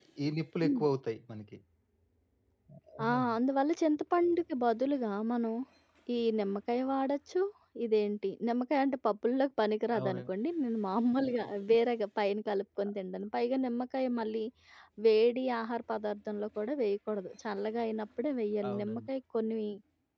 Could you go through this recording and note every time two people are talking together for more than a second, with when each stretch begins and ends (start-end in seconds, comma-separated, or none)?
none